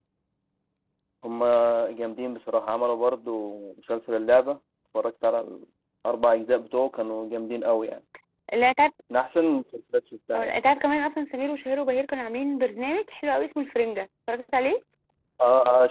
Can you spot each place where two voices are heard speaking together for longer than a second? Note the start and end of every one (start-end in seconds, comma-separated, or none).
none